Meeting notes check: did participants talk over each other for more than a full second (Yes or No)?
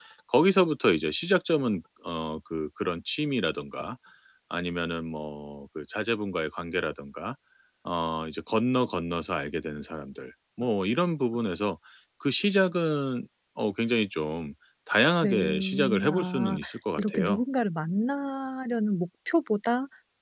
Yes